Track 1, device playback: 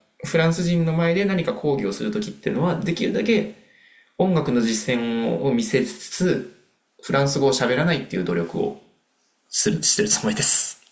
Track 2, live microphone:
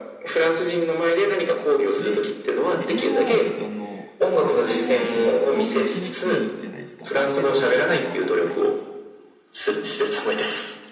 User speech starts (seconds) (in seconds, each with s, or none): 2.0 s